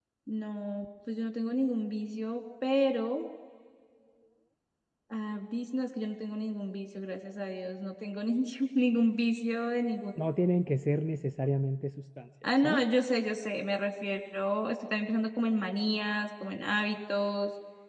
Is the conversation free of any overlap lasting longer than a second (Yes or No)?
Yes